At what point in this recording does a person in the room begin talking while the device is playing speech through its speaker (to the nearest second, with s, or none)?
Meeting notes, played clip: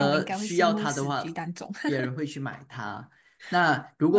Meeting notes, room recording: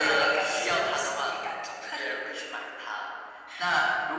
none